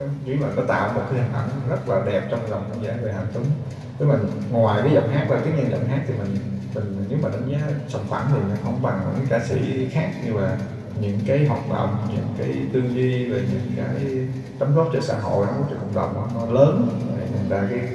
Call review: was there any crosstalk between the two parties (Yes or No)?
No